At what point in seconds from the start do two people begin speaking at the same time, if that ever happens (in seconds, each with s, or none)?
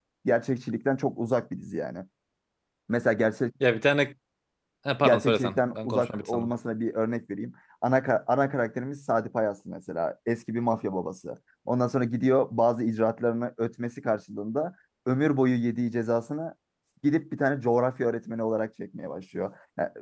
5.0 s